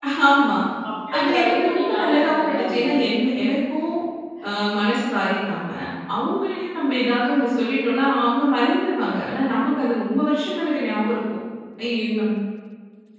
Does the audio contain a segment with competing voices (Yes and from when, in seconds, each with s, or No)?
Yes, from 1.2 s